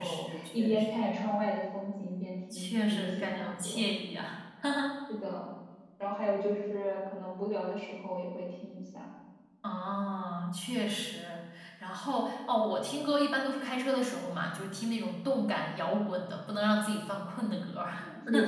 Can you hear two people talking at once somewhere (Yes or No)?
Yes